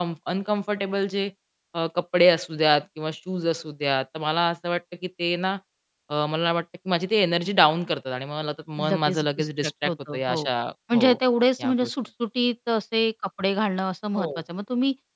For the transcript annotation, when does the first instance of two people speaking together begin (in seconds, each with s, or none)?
8.9 s